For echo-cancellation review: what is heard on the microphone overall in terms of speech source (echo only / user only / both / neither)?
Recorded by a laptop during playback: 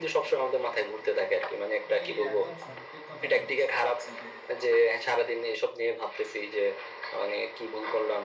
both